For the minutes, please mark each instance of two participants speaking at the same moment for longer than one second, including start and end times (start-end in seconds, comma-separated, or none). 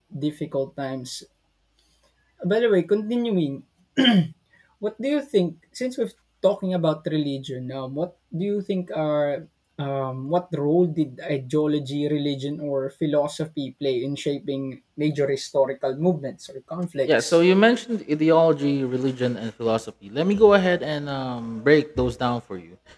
none